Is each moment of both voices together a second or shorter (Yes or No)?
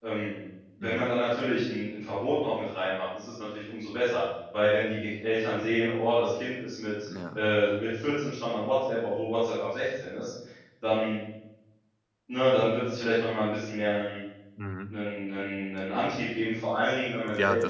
Yes